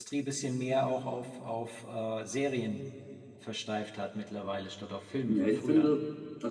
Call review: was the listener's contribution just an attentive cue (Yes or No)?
No